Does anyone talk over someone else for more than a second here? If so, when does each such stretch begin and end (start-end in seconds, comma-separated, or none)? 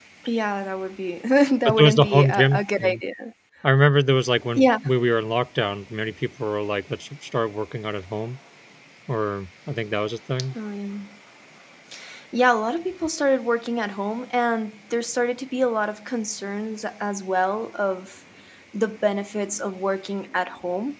1.6-3.0